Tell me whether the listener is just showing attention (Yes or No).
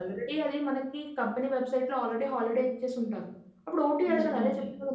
Yes